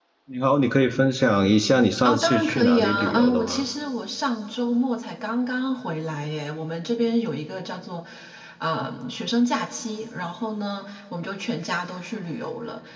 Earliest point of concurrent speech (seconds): 2.0 s

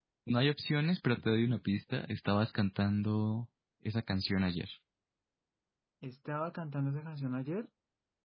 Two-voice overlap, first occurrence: none

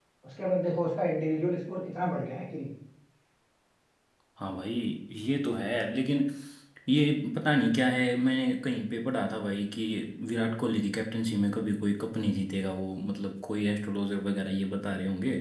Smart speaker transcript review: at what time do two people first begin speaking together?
none

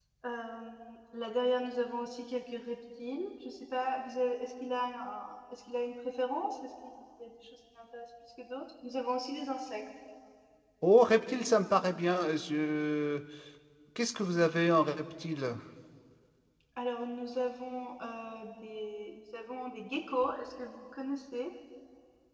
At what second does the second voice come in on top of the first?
none

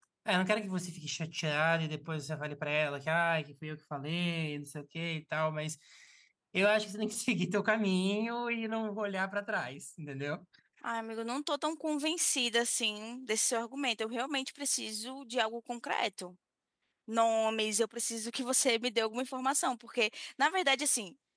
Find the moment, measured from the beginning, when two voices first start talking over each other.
none

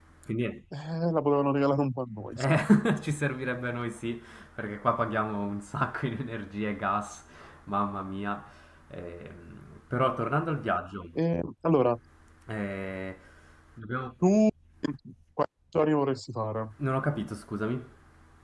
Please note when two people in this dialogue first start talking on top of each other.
none

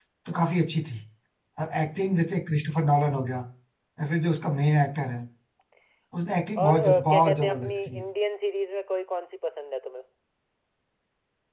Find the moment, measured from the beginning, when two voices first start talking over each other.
6.6 s

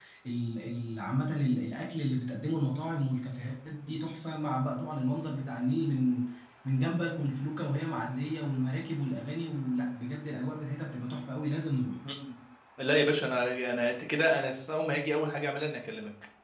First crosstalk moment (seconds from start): none

